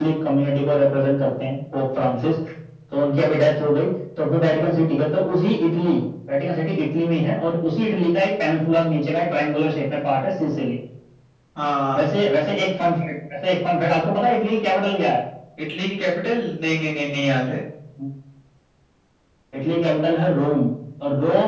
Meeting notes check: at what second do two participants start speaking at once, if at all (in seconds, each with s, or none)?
none